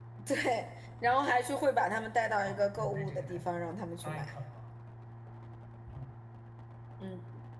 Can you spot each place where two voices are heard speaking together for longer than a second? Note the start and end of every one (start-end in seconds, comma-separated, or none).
2.4-4.3